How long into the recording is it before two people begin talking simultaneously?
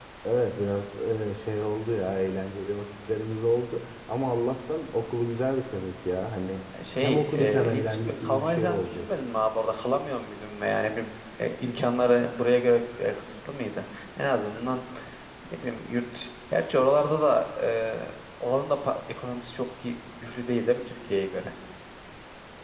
7.0 s

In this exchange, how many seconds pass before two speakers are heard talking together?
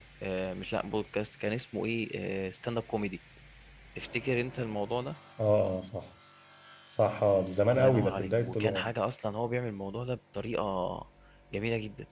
7.7 s

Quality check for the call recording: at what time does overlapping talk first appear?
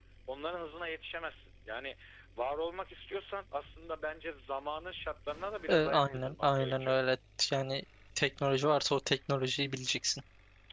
5.7 s

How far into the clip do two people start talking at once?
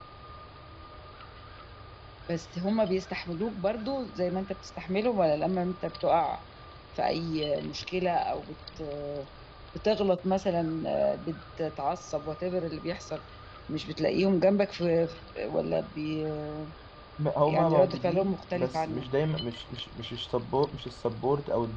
17.4 s

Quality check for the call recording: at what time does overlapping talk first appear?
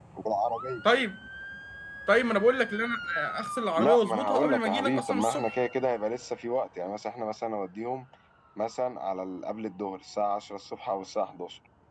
3.8 s

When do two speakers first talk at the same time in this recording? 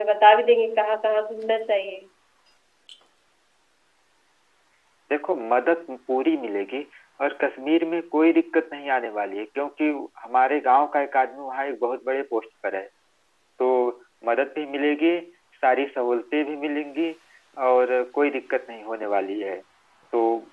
none

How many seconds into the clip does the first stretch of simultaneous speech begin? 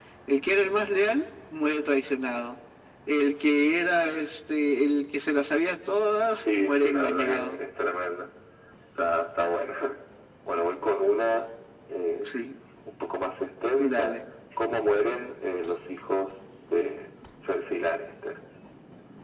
6.3 s

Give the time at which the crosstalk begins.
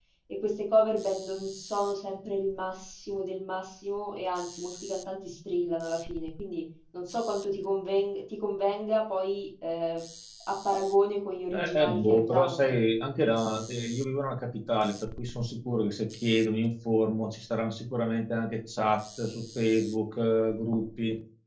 11.5 s

